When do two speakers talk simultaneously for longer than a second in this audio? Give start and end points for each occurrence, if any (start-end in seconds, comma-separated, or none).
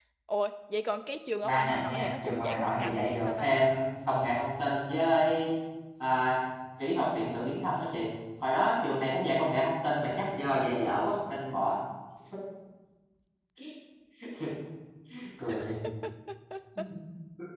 1.4-3.5